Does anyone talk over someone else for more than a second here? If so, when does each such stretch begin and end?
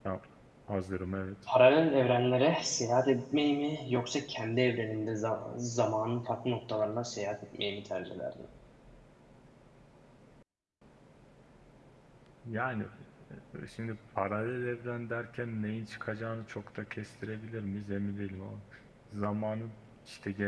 none

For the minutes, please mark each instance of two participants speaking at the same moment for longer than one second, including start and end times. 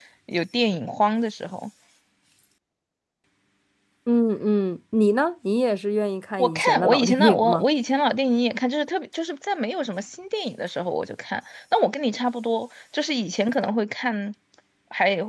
6.4-7.6

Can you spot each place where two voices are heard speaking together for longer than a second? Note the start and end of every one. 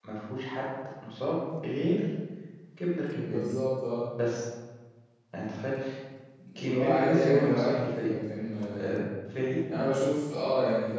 6.6-8.1

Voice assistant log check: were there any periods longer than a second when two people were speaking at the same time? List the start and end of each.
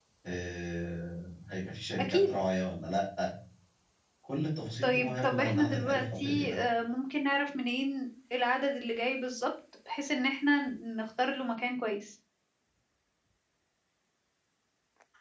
4.8-6.6

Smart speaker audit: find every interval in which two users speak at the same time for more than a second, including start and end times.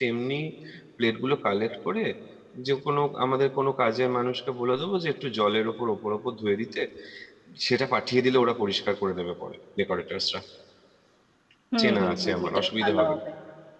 11.8-13.2

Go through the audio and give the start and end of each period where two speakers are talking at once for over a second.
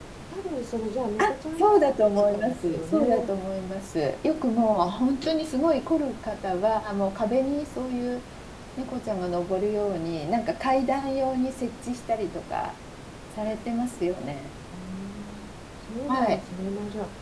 1.6-3.3

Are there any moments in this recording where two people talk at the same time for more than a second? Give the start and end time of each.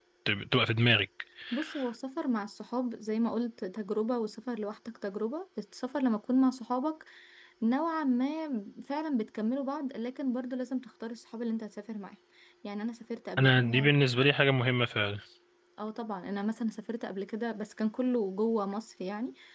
none

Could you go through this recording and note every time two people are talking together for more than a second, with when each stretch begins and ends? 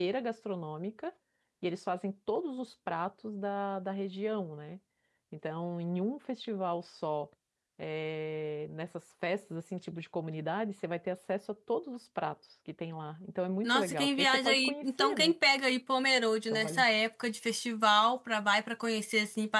13.6-15.3

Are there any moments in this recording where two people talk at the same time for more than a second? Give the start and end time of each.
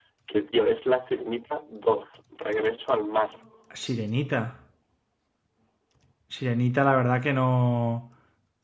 none

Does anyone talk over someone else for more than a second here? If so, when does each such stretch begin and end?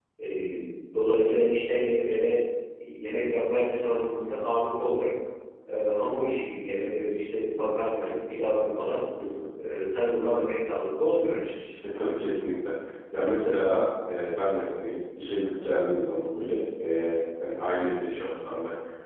none

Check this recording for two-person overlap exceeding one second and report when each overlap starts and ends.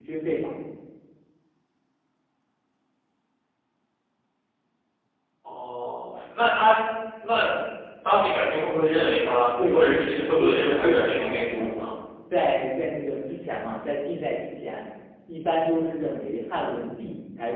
9.7-11.7

